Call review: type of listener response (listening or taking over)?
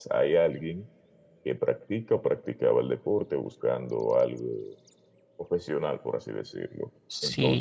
taking over